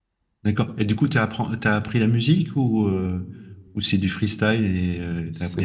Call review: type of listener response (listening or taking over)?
taking over